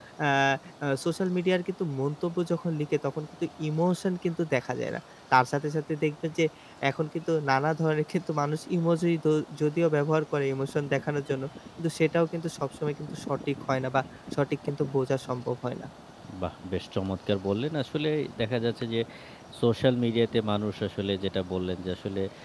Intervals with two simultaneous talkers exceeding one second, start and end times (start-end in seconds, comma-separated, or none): none